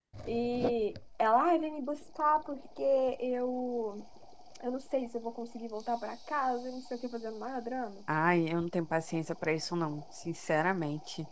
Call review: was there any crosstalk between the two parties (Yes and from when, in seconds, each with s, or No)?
No